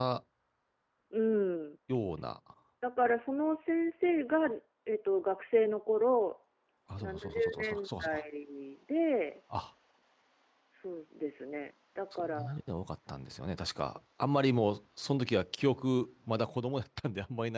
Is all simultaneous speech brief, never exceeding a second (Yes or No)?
No